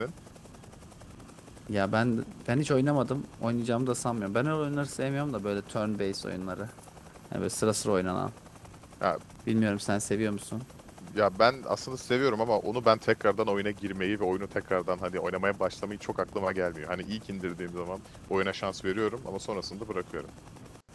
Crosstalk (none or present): none